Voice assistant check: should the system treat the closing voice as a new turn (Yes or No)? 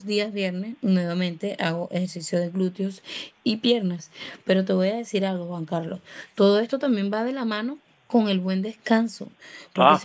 No